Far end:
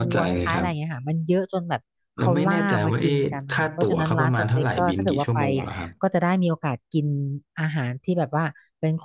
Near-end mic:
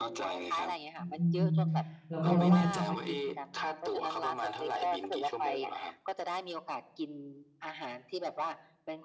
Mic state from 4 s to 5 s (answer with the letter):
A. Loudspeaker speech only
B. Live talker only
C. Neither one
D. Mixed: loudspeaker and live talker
A